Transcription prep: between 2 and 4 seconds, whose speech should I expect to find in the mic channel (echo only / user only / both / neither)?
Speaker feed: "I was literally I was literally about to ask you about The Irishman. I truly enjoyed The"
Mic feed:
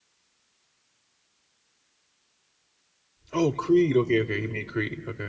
user only